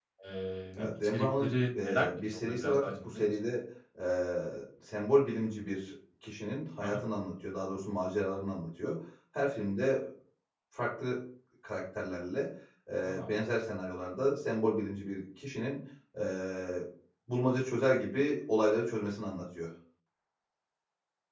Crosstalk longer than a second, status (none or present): present